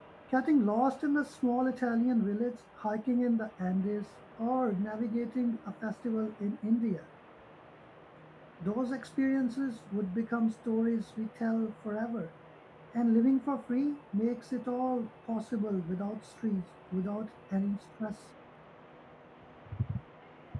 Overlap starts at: none

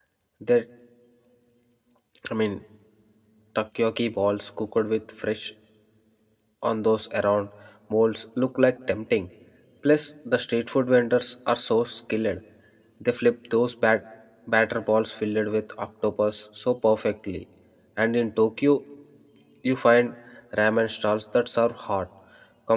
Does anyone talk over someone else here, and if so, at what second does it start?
none

